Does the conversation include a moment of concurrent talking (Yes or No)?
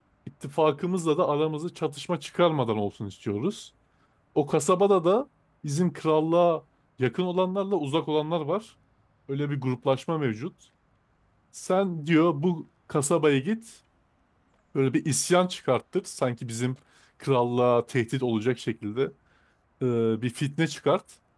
No